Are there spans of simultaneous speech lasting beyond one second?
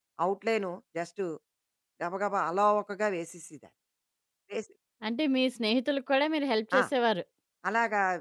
No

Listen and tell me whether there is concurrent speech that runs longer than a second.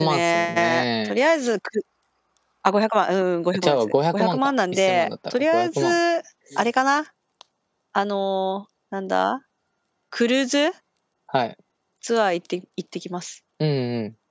Yes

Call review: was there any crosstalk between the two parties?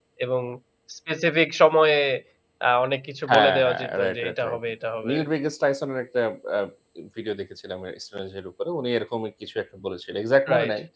Yes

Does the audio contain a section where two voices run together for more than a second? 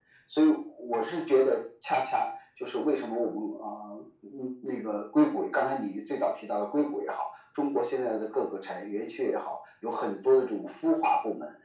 No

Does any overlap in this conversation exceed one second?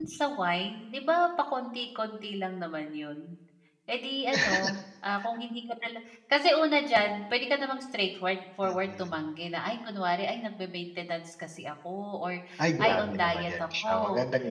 Yes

